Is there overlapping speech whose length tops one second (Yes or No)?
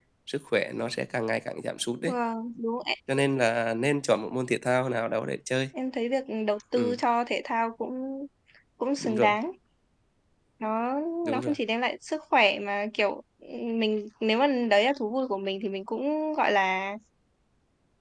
No